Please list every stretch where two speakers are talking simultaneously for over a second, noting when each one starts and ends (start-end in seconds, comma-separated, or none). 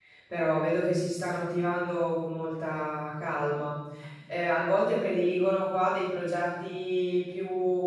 none